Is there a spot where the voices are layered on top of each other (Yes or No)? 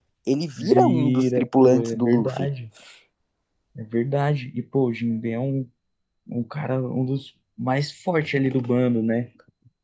Yes